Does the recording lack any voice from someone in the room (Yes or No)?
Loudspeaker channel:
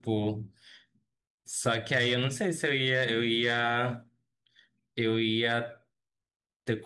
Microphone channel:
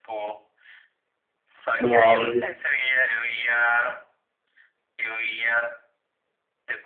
No